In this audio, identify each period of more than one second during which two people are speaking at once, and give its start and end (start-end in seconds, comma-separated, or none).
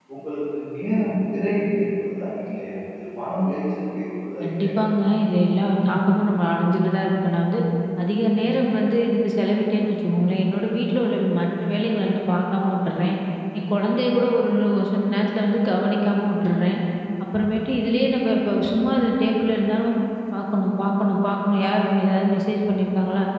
none